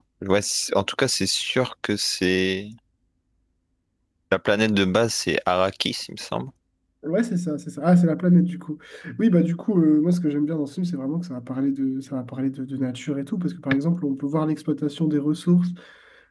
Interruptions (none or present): none